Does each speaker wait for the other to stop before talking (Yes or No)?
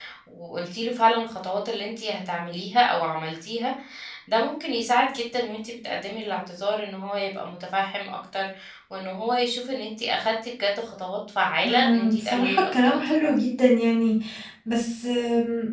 No